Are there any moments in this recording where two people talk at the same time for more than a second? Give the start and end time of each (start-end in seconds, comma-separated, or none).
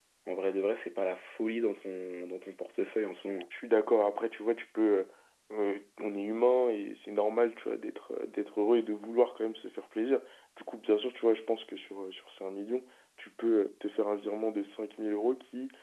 none